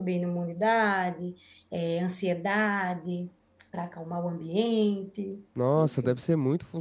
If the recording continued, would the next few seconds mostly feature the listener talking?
Yes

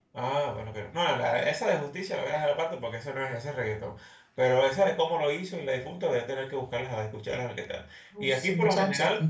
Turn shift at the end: Yes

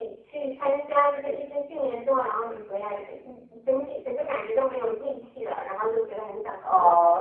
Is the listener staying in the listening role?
No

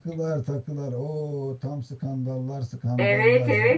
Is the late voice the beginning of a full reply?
Yes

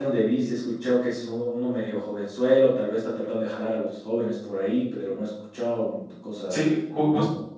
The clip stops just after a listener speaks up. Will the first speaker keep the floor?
No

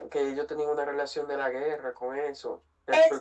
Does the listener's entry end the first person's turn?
Yes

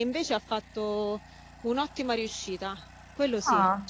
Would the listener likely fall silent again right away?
No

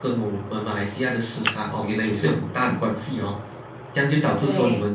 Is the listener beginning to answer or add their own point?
No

